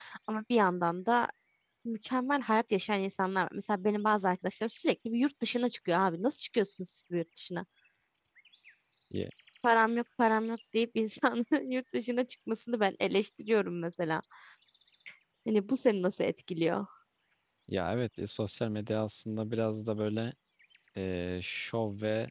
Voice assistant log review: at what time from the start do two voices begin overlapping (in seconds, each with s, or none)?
none